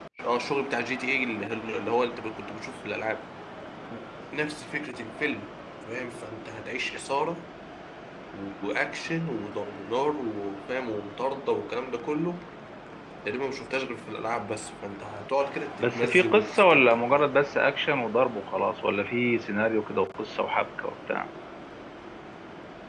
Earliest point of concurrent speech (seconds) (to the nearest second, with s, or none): 16 s